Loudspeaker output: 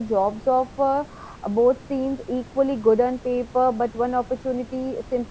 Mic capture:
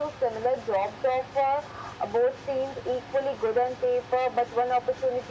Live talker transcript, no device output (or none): none